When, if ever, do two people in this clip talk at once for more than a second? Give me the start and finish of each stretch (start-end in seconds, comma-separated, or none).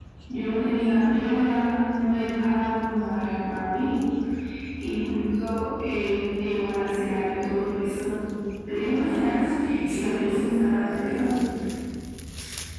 9.0-11.1